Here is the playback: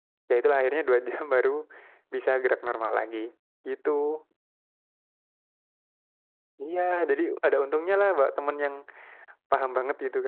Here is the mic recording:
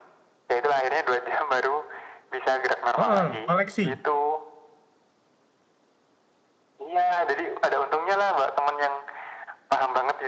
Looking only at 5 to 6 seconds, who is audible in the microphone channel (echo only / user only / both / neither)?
neither